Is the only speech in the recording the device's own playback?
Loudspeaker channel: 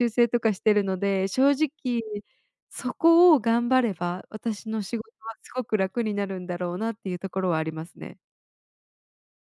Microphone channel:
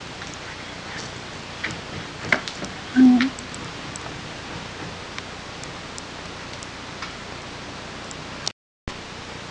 No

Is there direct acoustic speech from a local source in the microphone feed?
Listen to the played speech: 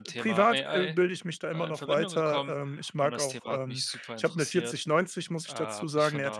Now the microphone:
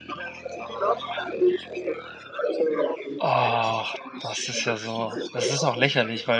Yes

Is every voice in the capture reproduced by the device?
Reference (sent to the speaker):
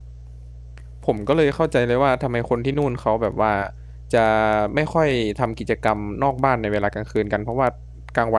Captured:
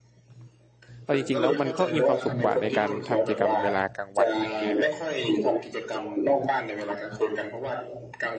No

